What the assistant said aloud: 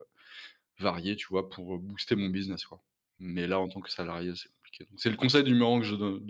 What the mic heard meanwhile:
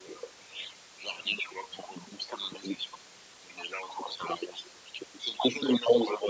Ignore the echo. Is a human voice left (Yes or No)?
No